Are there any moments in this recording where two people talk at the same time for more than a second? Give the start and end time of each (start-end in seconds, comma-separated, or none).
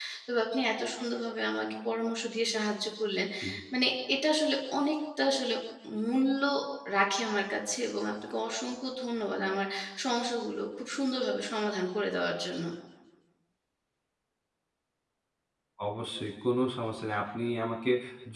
none